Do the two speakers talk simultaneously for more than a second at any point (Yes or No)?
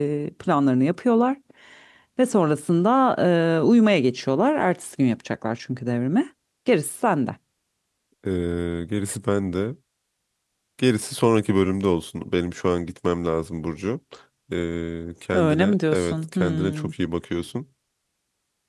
Yes